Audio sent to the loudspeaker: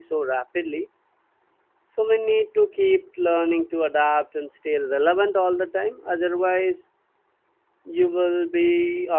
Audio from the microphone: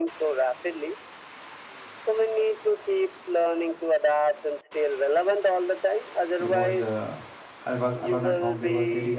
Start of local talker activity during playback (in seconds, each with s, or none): 6.5 s